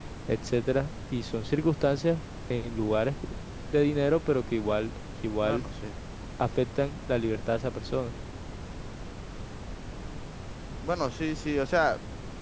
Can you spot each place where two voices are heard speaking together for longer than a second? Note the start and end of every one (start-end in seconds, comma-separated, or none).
none